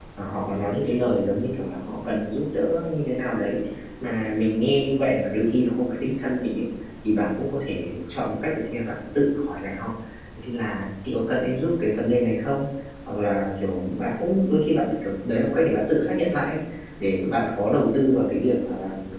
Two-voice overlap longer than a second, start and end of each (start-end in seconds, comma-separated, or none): none